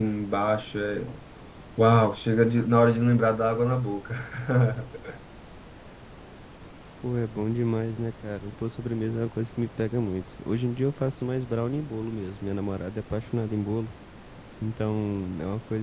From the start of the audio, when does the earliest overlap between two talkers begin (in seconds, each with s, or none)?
none